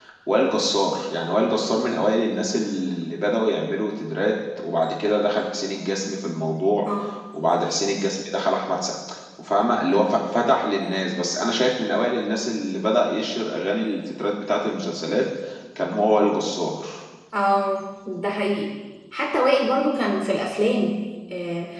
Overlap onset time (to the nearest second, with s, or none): none